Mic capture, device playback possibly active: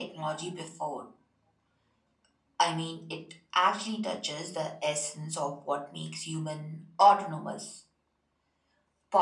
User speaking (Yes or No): No